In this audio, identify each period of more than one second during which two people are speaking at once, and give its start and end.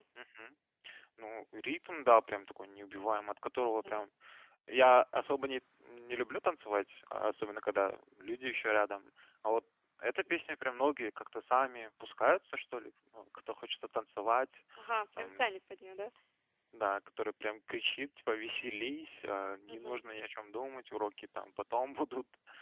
none

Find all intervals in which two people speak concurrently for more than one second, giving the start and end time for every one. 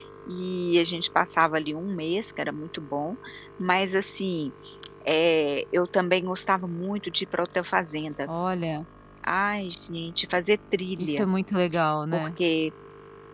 none

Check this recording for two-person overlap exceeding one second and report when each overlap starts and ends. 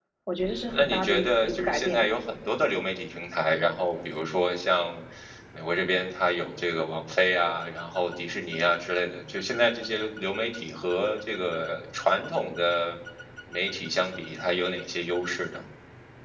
0.7-2.1

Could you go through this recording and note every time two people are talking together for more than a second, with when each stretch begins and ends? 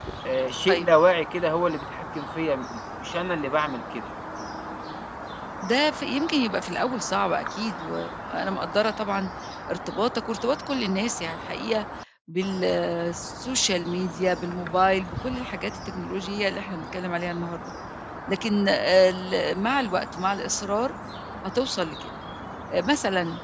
none

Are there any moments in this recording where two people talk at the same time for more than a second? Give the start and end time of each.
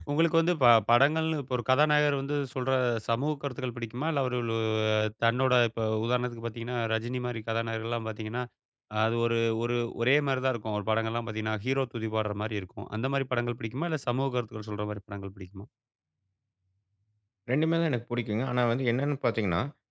none

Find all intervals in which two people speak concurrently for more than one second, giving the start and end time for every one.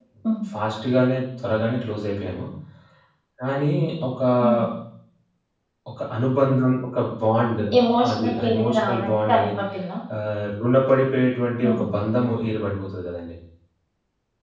8.1-9.5

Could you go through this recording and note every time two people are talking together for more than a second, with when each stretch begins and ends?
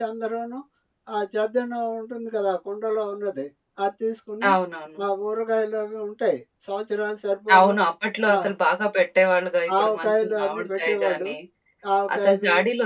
9.8-11.3

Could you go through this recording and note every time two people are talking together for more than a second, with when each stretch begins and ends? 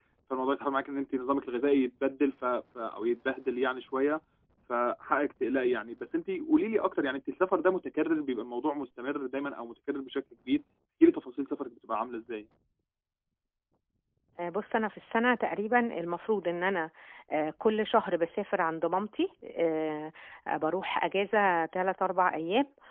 none

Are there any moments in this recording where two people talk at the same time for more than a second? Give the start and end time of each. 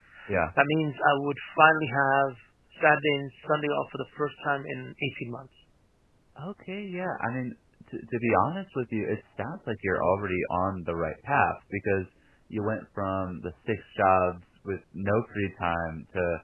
none

